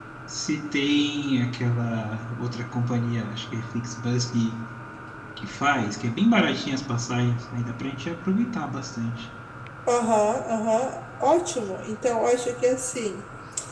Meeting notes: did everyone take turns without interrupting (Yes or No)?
Yes